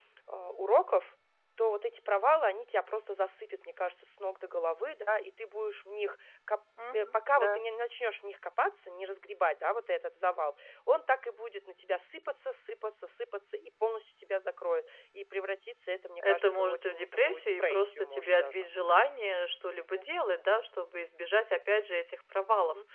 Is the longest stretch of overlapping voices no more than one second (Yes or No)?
No